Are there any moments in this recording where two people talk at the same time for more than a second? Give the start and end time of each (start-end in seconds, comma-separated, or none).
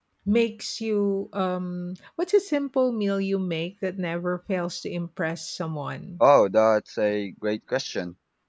none